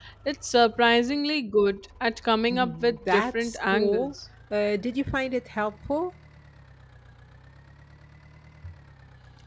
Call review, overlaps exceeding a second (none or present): present